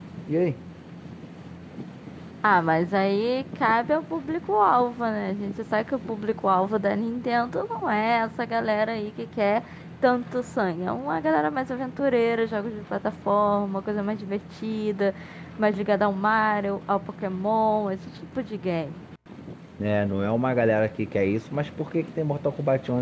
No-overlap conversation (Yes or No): Yes